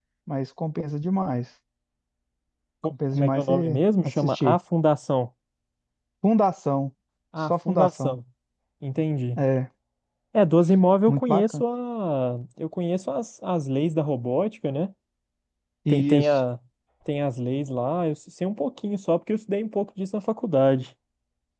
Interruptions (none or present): present